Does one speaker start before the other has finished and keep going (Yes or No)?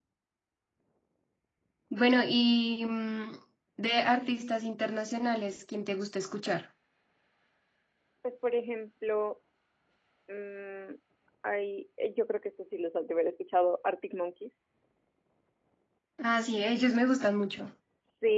No